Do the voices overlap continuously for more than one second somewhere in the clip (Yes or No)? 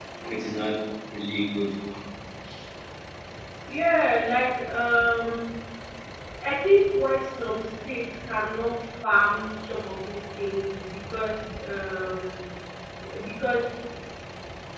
No